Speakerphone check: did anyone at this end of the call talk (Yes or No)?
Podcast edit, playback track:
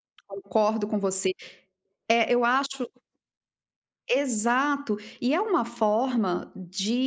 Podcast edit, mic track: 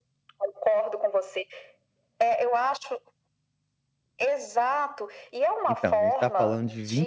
Yes